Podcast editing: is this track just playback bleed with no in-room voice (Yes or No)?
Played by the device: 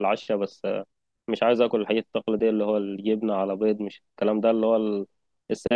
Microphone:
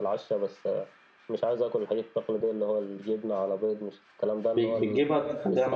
No